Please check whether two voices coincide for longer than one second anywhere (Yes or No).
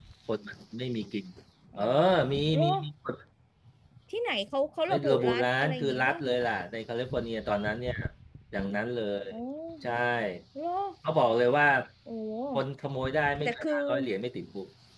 Yes